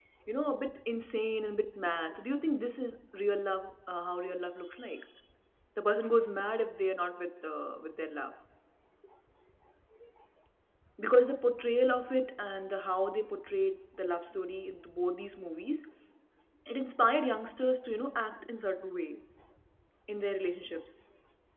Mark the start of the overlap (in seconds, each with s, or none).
none